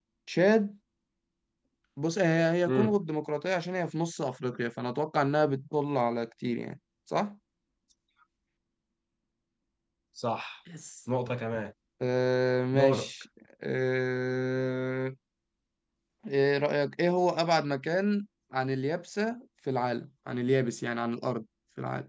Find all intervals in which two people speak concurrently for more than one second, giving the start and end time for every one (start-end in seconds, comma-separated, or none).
none